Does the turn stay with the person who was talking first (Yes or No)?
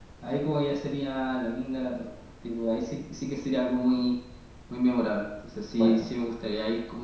Yes